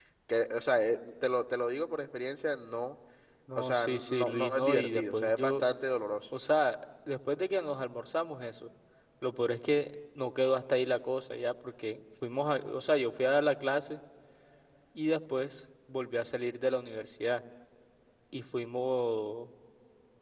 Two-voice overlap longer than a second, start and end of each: 3.6-5.6

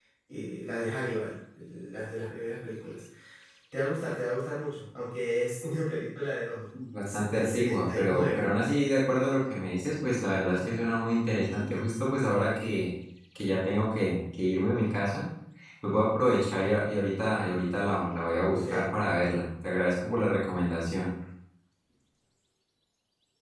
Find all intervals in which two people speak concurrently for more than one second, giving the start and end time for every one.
7.2-8.5

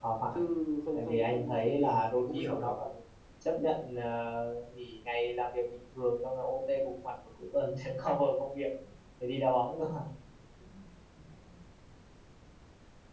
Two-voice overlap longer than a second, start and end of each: 0.9-2.8

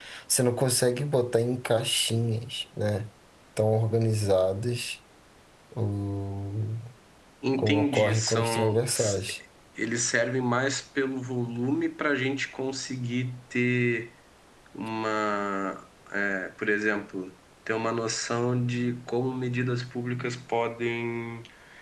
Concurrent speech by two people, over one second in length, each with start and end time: 7.6-9.2

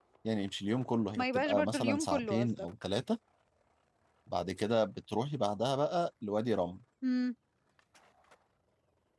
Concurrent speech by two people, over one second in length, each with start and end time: 1.2-2.7

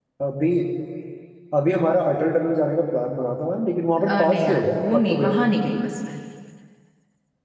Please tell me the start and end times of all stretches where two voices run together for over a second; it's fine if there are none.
4.1-5.5

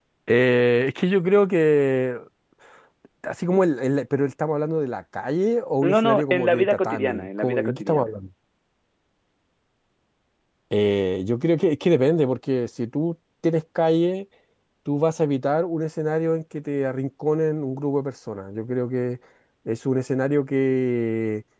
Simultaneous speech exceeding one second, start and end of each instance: 5.8-8.1

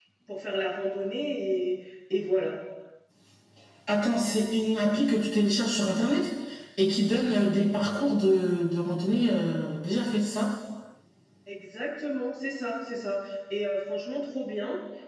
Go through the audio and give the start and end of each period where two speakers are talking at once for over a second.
none

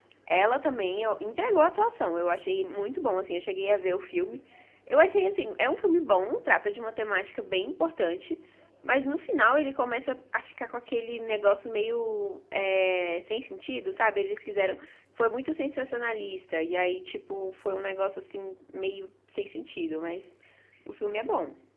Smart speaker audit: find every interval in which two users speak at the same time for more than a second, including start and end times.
none

